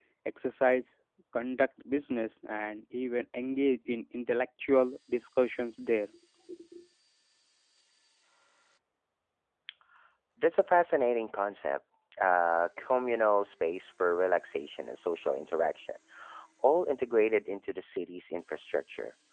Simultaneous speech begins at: none

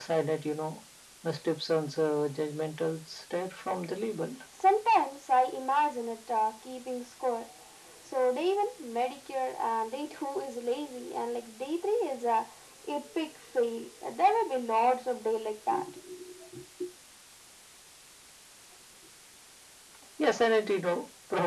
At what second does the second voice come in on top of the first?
none

